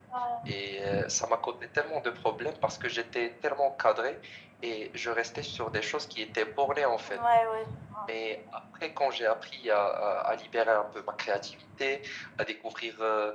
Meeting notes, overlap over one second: none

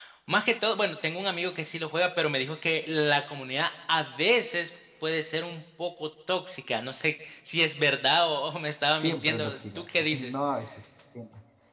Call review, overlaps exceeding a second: present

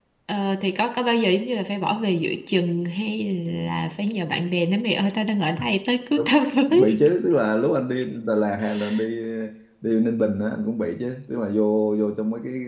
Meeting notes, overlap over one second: none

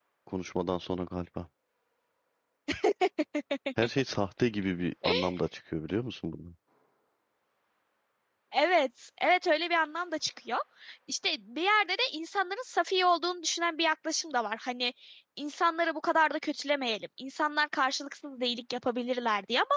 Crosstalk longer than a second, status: none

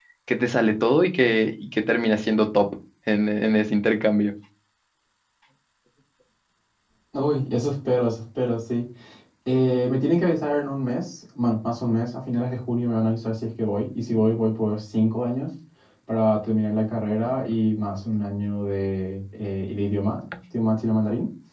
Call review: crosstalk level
none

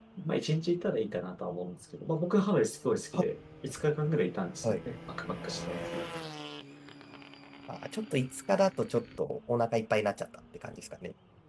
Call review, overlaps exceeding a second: none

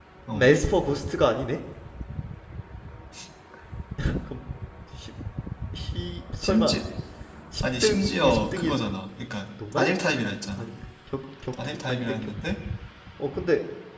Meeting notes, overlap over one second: present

